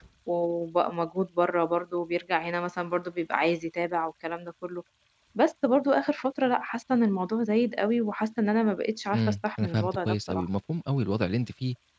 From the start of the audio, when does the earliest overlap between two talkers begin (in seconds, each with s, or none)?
9.1 s